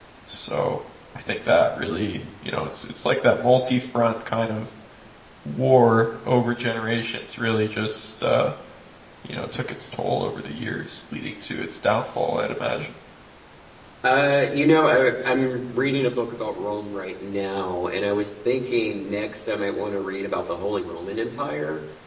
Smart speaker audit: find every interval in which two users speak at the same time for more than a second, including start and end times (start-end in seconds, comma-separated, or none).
none